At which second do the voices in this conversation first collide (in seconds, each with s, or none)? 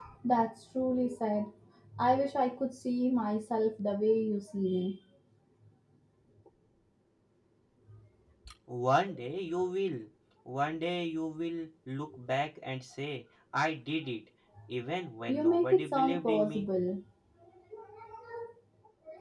15.3 s